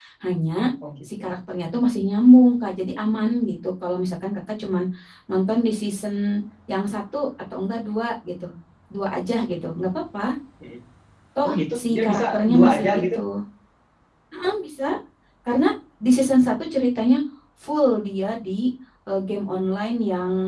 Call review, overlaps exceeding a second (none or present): present